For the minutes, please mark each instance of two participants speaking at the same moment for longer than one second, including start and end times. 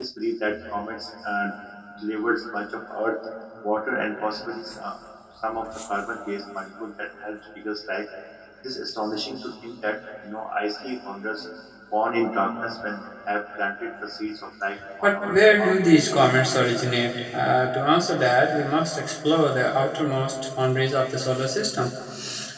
15.0-16.2

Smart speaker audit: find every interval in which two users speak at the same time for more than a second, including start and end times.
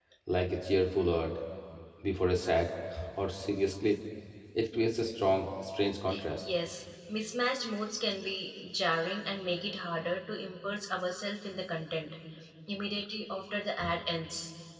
none

